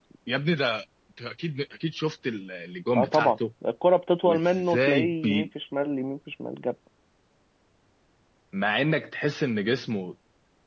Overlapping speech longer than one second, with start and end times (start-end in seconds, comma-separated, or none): 4.2-5.5